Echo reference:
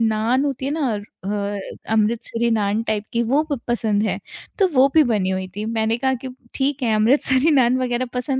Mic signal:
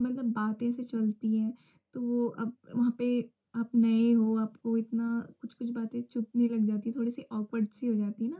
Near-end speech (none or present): present